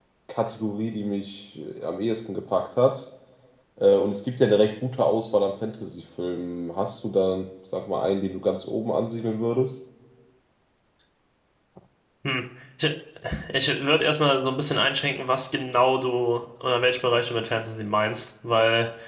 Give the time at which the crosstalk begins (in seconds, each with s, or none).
none